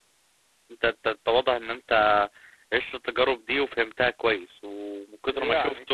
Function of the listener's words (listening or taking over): listening